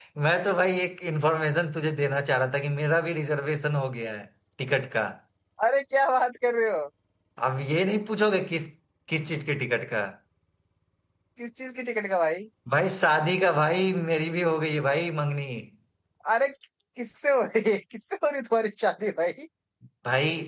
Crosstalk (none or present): none